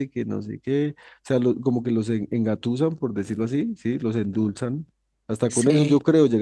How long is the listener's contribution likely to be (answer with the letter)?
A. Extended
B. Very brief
B